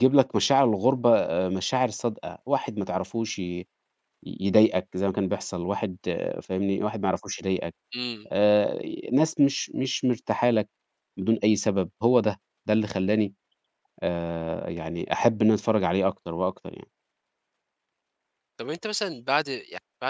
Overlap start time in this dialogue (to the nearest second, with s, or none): none